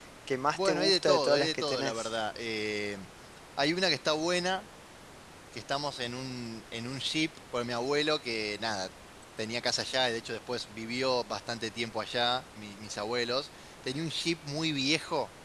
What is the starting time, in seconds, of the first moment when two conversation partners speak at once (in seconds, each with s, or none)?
0.6 s